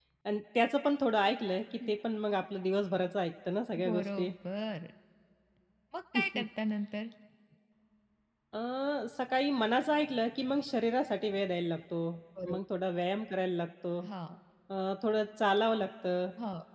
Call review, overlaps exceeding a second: none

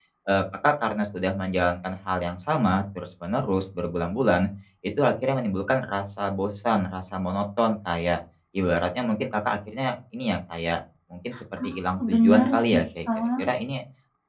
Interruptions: present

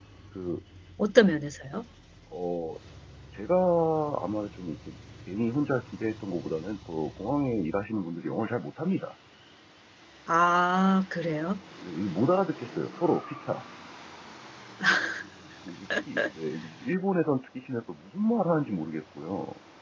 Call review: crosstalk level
none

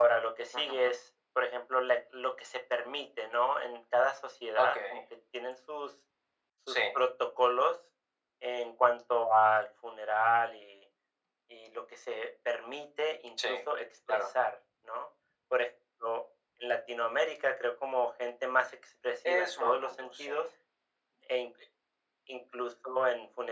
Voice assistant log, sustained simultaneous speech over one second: present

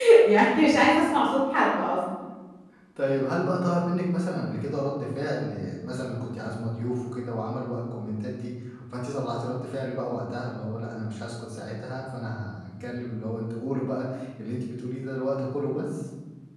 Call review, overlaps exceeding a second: none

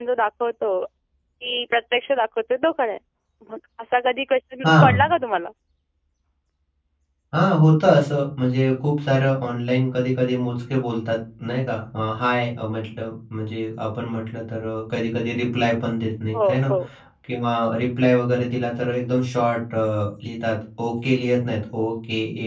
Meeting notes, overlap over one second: none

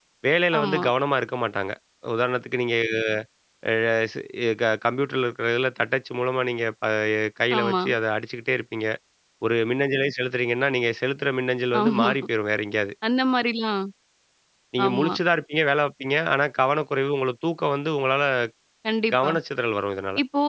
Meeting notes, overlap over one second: none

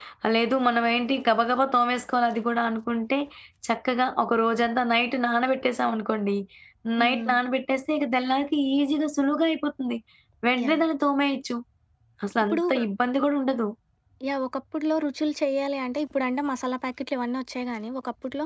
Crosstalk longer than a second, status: none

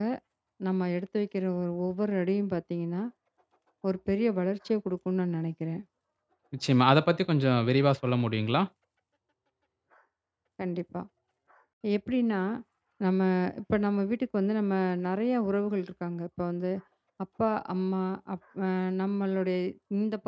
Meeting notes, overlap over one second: none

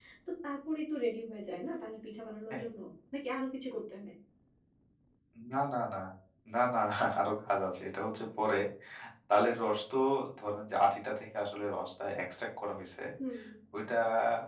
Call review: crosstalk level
none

